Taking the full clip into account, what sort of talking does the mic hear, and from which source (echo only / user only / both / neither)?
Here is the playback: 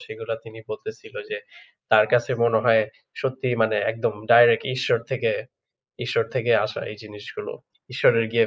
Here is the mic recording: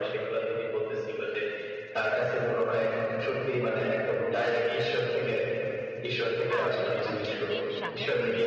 both